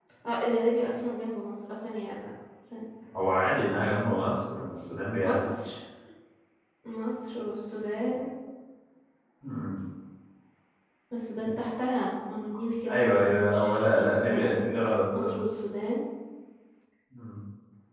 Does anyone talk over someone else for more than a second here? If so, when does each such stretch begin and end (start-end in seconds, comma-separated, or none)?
12.9-14.7